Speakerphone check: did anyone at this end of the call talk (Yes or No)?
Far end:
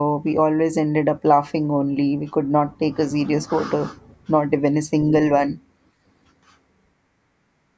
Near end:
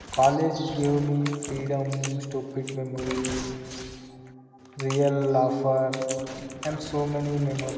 Yes